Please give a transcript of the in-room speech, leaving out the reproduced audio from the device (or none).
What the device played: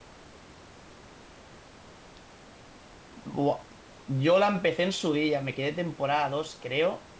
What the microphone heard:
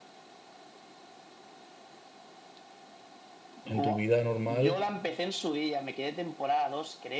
en tu vida normal